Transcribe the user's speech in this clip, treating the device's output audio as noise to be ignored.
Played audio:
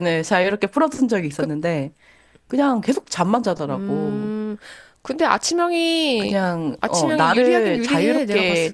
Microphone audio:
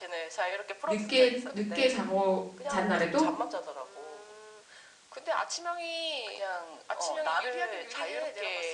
늦게, 늦게 자고 잔 날에도?

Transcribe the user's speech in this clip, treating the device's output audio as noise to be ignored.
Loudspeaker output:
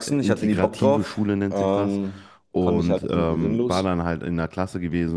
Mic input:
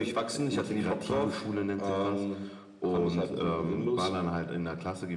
none

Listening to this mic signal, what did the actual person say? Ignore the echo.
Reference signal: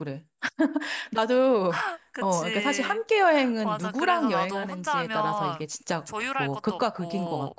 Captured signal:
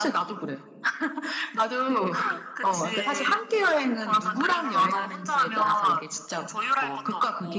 none

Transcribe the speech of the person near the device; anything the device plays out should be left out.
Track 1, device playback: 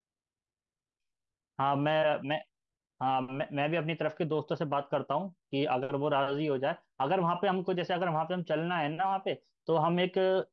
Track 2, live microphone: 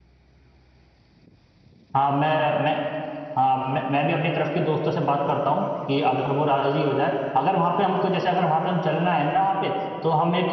none

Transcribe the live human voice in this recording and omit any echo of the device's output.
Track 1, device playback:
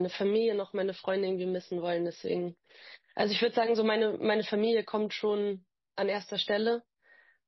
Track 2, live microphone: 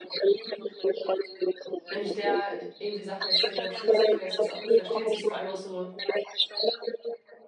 wenn ich der irgendwie Sachen erzähle, dann habe ich schon das Gefühl, dass sie es auch gut versteht. Sie ist vor allem auch so

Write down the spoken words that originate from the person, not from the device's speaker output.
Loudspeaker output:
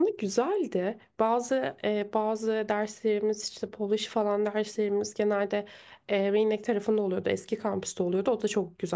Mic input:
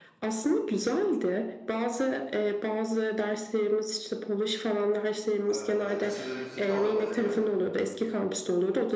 Ee, La Casa de Musica olabilir mi?

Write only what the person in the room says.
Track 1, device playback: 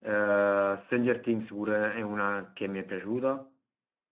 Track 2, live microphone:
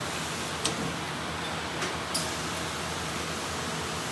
none

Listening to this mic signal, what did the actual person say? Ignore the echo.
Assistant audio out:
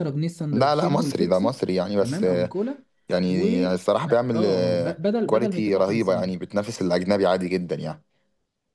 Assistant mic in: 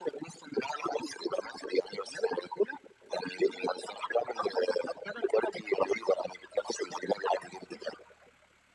none

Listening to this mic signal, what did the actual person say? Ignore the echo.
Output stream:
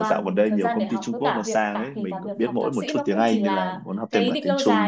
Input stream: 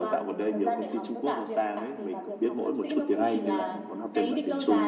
none

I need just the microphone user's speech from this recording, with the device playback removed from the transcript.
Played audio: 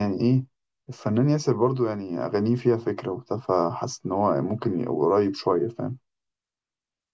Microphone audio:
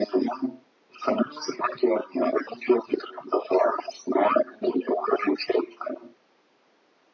none

